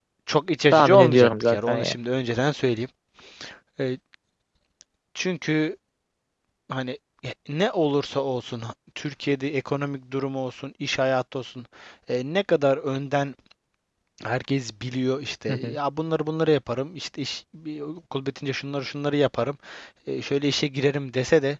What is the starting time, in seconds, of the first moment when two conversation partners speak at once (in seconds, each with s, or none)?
0.7 s